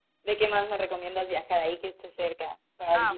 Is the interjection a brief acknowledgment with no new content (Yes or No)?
No